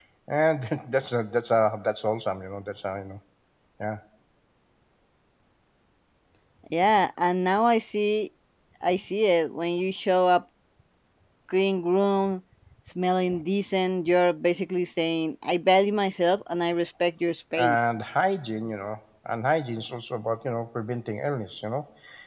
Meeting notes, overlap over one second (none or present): none